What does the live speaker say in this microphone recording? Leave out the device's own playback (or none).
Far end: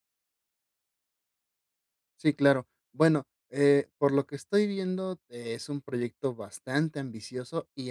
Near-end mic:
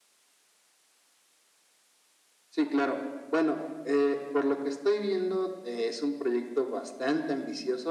none